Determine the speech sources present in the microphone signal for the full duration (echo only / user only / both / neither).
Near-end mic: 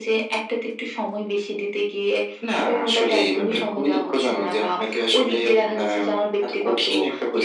both